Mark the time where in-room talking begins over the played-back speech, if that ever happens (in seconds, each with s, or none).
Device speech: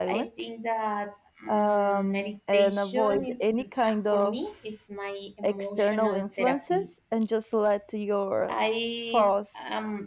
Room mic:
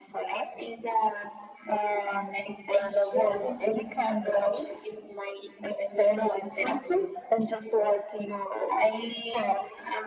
none